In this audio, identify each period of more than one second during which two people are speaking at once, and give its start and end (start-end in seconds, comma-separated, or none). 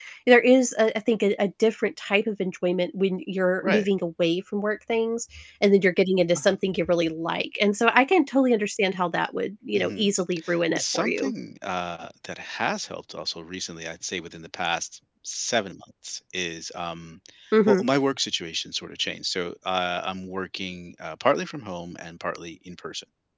none